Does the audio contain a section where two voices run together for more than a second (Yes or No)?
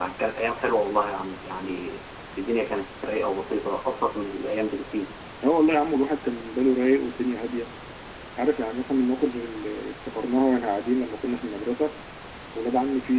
No